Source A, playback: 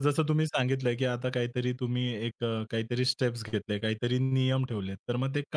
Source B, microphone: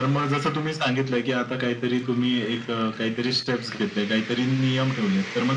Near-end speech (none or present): none